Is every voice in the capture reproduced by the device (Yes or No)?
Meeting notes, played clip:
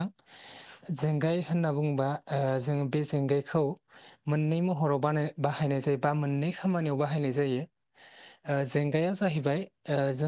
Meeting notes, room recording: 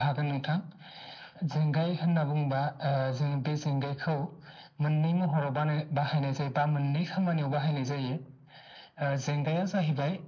Yes